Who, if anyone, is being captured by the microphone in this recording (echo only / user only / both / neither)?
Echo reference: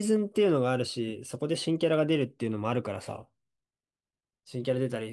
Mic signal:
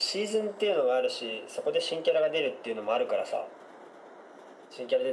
echo only